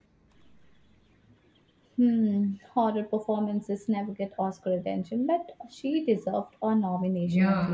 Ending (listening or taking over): taking over